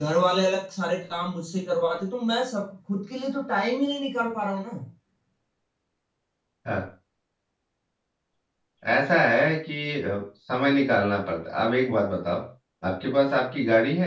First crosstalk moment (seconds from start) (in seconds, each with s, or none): none